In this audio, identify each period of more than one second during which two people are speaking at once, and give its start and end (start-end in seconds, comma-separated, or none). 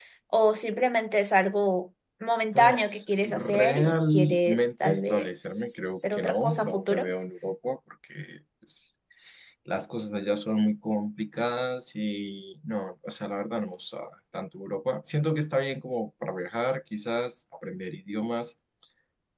2.5-7.1